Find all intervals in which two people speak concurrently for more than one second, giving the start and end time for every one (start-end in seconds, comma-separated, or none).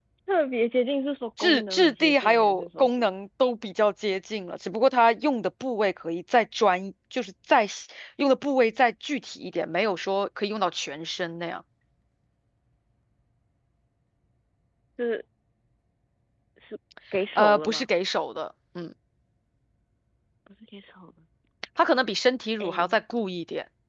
1.4-3.1